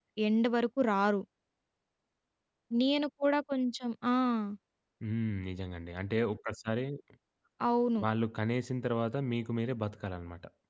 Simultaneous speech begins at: none

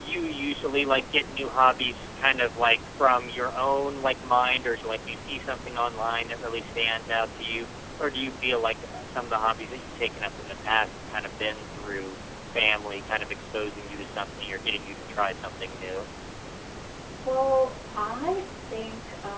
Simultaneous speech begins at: none

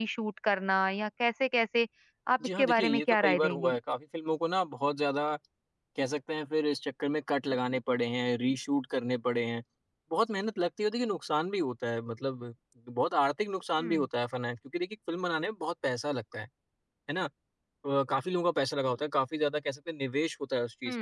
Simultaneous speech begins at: 2.4 s

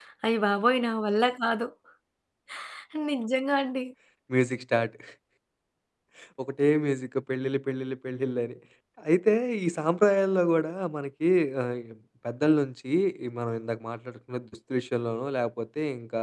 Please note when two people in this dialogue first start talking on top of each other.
none

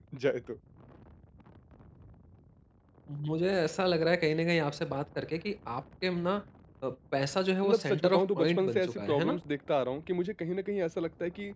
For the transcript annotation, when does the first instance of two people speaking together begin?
7.7 s

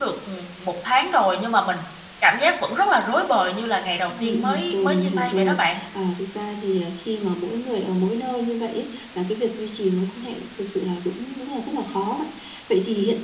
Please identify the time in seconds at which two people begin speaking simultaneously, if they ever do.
4.1 s

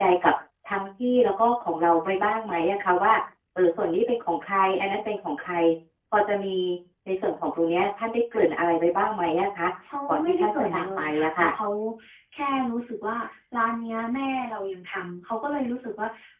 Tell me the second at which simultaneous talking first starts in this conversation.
10.1 s

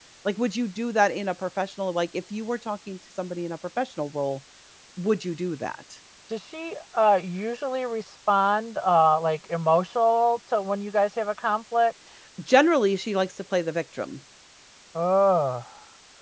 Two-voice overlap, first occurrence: none

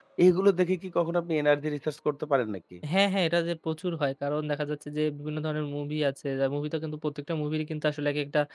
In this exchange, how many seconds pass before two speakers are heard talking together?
none

